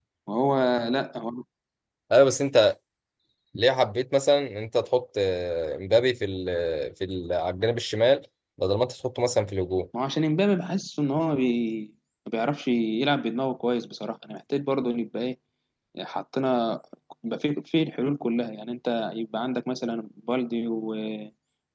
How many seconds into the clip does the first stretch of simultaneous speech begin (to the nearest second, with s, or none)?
none